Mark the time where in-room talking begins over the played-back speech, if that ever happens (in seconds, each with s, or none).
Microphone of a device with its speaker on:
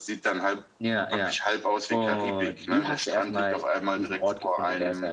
none